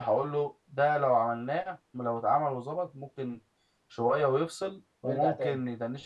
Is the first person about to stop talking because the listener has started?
No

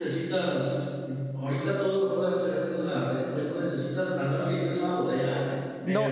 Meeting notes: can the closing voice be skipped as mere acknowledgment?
No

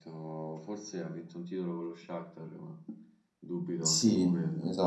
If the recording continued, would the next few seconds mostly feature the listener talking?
Yes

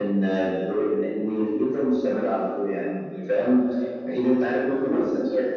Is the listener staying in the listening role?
Yes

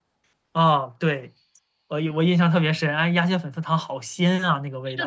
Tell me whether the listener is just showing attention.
No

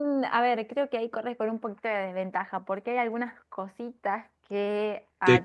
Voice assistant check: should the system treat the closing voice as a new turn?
No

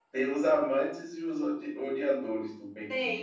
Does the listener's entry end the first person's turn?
Yes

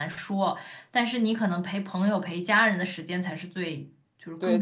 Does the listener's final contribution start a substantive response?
Yes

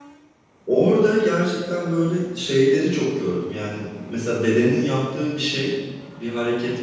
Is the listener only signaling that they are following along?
Yes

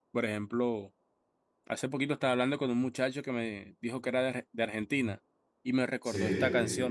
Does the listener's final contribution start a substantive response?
No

